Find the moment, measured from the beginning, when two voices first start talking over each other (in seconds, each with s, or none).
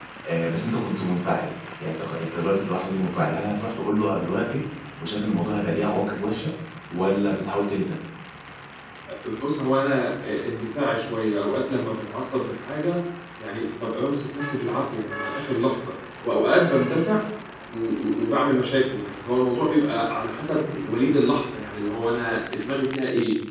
none